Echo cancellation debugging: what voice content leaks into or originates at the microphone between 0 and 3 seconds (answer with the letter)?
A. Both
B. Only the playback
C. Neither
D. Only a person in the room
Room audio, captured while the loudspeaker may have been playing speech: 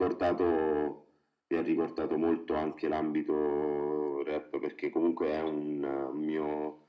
B